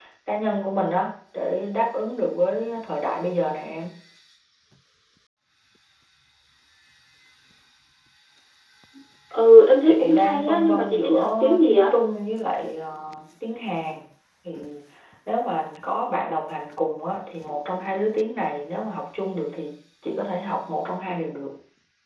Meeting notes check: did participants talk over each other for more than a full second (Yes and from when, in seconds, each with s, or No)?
Yes, from 9.8 s